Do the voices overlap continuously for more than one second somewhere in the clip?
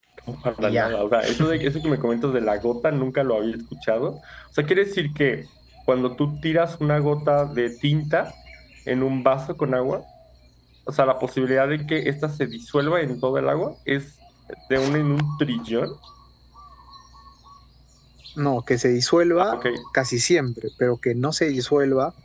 No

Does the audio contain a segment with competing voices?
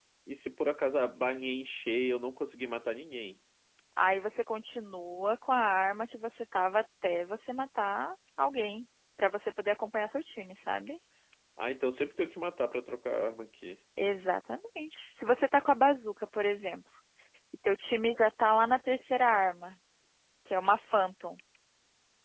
No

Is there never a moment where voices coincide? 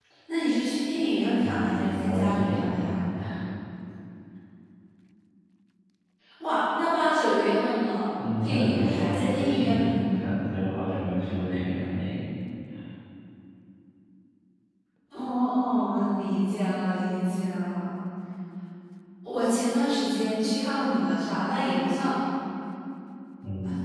No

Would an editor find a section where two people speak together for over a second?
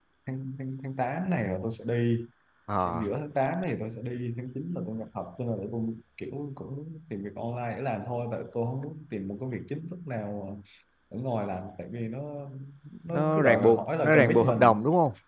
Yes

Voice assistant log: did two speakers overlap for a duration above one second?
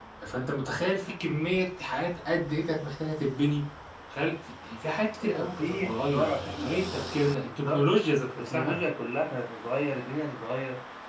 Yes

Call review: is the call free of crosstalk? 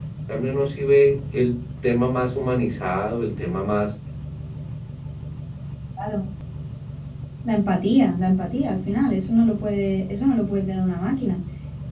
Yes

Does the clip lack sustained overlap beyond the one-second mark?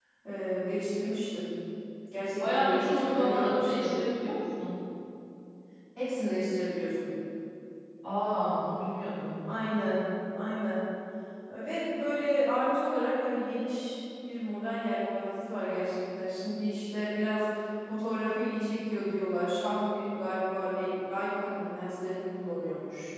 No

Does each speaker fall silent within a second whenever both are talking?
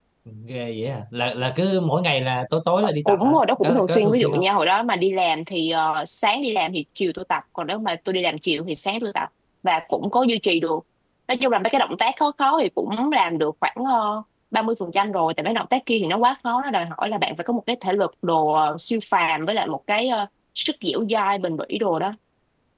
No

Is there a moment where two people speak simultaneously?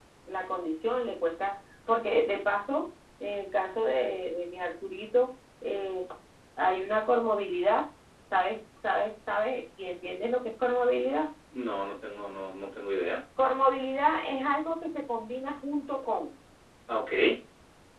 No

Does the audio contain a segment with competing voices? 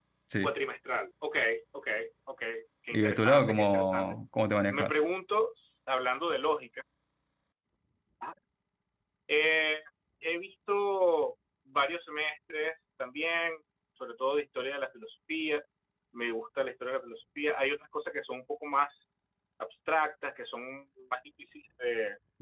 Yes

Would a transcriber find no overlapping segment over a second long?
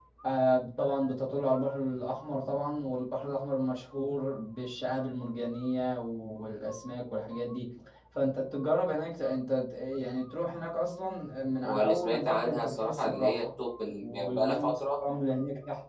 No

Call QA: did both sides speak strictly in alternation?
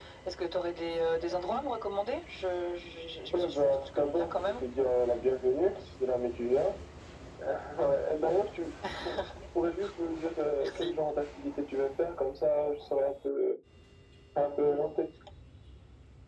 No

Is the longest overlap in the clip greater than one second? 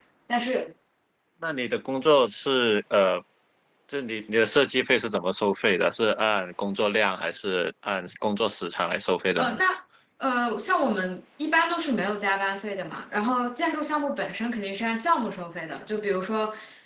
No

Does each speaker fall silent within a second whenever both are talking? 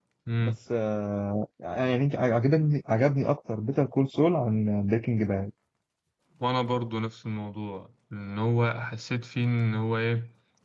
Yes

